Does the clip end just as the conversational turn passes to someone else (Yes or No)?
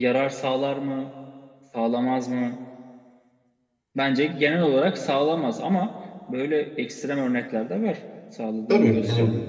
Yes